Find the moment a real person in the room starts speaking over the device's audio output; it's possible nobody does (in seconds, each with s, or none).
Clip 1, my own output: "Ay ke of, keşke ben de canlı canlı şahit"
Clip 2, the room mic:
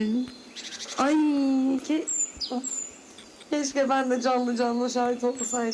none